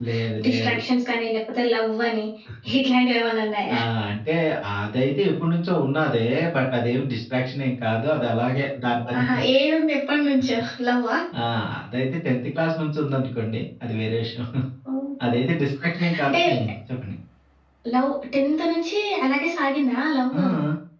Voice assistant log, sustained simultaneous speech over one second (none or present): none